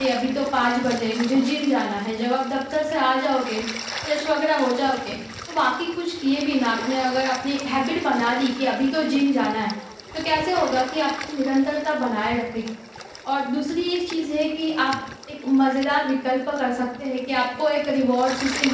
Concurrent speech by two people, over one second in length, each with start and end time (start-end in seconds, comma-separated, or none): none